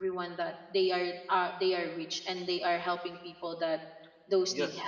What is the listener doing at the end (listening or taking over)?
taking over